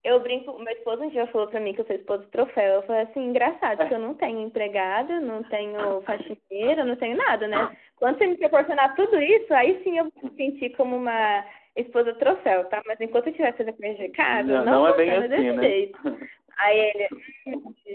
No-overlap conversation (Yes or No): No